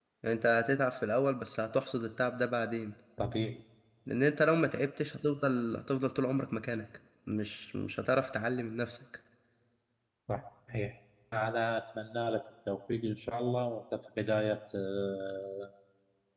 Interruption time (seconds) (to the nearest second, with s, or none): none